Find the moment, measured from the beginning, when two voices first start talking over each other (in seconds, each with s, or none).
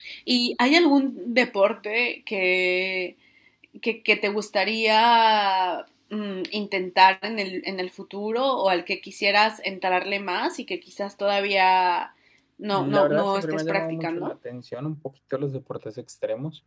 12.7 s